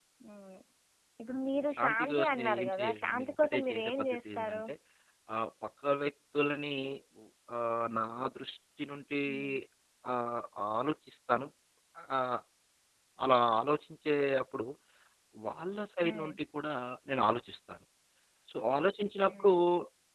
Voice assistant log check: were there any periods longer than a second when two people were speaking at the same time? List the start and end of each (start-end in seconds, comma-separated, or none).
1.8-4.6